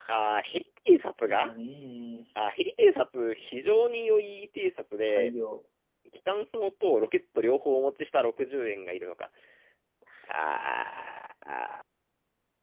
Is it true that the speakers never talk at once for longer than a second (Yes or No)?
Yes